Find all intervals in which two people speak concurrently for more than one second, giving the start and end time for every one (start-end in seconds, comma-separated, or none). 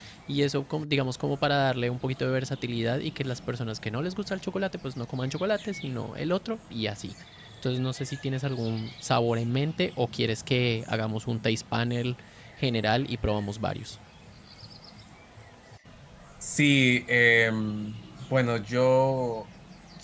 none